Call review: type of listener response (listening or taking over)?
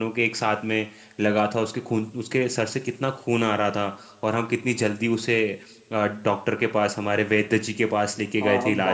taking over